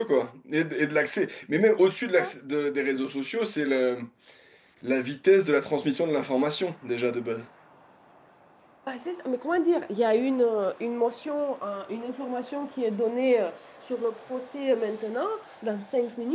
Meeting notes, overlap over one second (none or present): none